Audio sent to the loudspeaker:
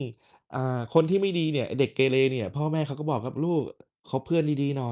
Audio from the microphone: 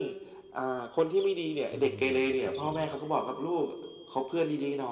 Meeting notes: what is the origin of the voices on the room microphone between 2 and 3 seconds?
both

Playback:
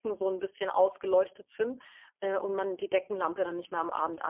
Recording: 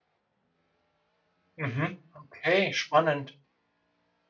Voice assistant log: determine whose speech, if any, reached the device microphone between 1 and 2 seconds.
user only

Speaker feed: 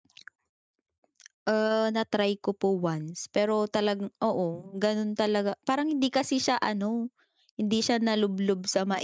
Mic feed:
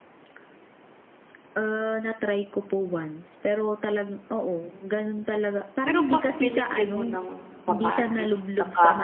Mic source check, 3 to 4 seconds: echo only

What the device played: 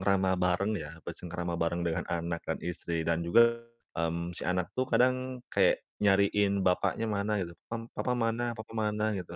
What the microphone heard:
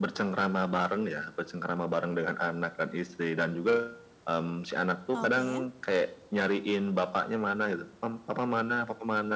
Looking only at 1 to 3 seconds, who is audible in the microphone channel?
echo only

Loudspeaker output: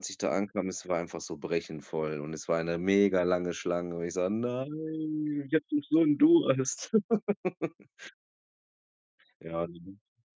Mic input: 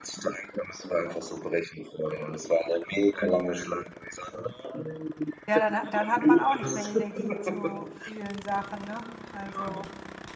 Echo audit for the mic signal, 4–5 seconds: echo only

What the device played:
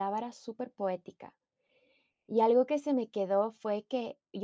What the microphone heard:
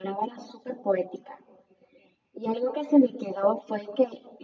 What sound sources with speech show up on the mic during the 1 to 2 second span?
echo only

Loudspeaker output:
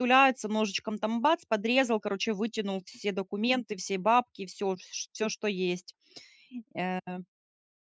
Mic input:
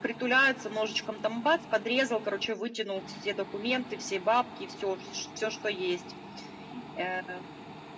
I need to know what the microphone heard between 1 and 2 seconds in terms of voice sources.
echo only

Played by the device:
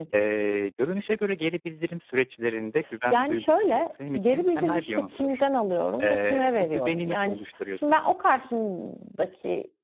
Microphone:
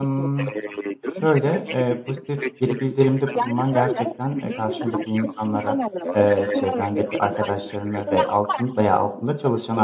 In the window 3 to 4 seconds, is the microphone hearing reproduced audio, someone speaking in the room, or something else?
both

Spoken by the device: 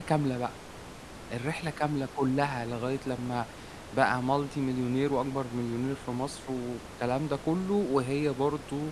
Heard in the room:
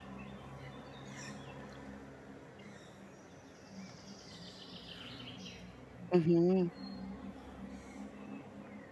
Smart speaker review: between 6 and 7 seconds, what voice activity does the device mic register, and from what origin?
user only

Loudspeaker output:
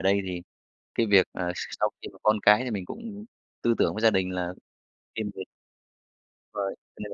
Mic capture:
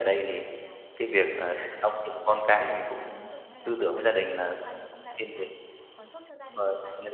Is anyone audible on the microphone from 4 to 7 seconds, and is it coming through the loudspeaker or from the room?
both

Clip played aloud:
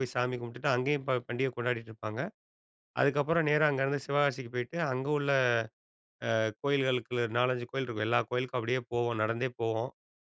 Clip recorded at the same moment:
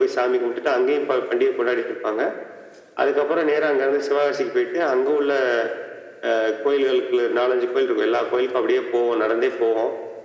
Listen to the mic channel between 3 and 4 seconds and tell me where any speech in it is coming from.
echo only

